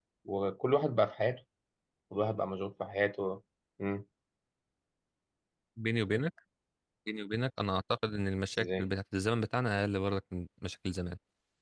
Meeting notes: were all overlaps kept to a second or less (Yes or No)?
Yes